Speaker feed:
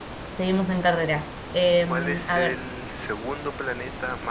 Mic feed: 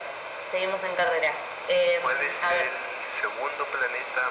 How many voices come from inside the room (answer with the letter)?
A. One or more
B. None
B